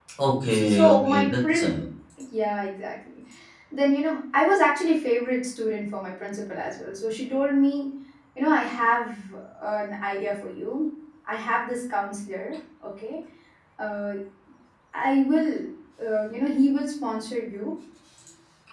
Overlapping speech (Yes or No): Yes